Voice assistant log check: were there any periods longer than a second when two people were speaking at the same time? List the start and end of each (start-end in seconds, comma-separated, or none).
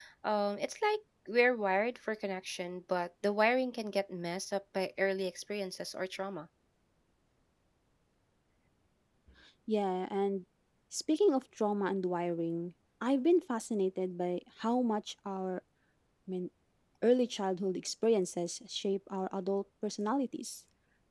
none